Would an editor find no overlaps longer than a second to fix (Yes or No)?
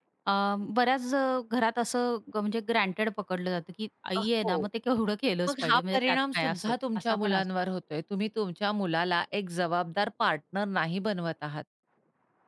No